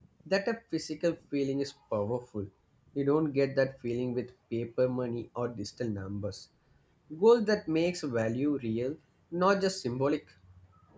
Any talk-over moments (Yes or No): No